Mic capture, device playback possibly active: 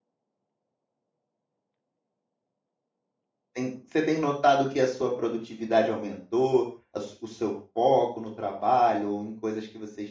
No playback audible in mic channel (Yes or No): Yes